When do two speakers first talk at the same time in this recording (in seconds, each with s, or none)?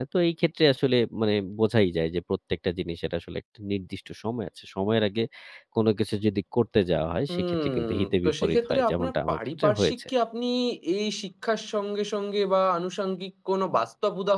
7.3 s